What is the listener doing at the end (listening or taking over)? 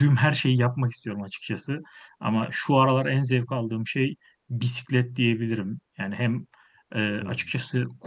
listening